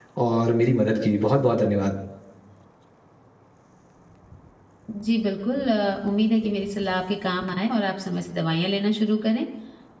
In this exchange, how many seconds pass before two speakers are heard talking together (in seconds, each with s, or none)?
none